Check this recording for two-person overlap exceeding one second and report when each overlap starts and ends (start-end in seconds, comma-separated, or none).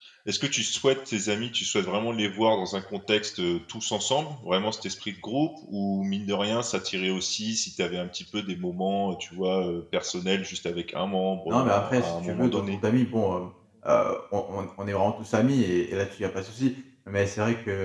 11.5-12.8